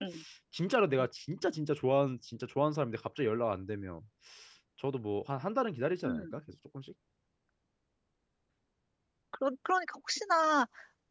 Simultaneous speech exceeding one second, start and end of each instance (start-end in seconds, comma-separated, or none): none